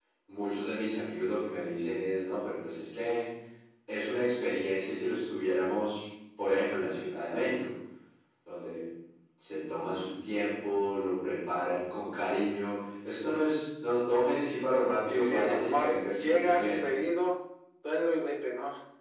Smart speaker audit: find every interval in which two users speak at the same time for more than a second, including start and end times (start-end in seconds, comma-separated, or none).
15.1-16.8